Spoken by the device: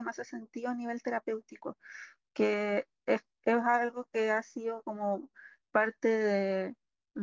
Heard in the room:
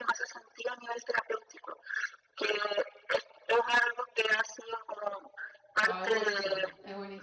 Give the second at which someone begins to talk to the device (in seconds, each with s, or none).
5.8 s